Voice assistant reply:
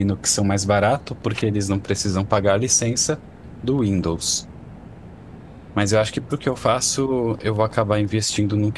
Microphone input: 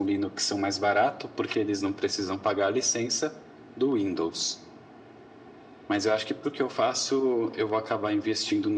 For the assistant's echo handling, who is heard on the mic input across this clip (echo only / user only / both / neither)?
echo only